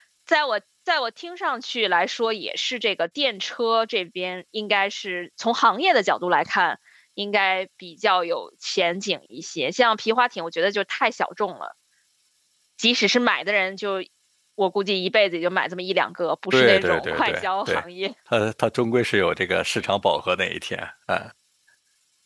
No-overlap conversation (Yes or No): No